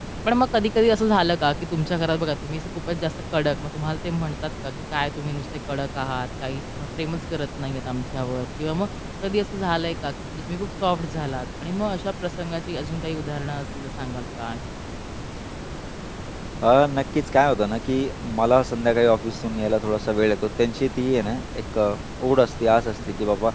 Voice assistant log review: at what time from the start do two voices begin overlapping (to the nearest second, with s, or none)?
none